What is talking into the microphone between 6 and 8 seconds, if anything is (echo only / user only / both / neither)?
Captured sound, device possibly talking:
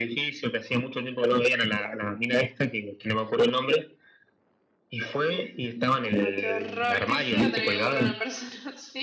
both